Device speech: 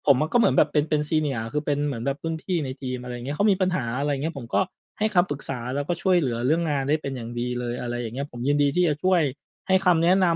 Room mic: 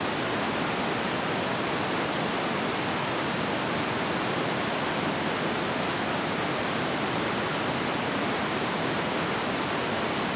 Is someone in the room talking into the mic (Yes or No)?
No